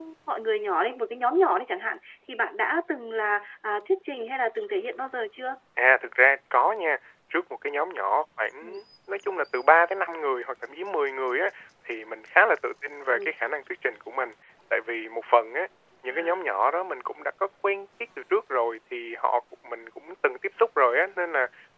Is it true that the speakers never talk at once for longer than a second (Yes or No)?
Yes